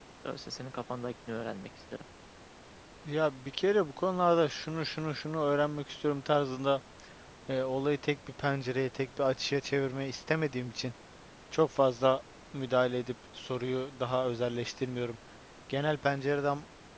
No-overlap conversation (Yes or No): Yes